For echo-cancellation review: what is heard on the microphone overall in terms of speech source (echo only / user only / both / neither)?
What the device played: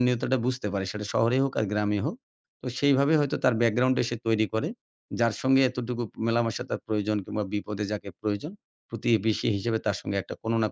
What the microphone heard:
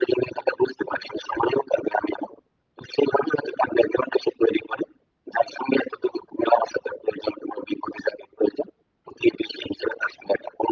echo only